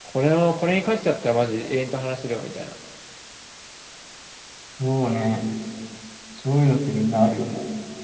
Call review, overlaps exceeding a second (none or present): none